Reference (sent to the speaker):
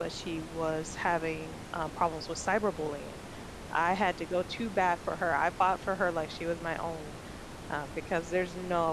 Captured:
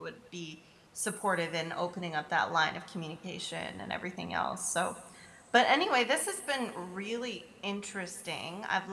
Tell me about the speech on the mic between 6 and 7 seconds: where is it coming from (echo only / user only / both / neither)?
user only